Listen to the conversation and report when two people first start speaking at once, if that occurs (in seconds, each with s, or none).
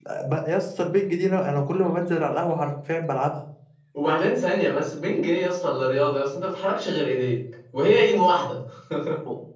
none